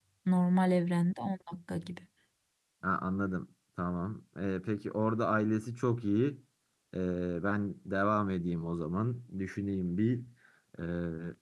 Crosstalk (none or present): none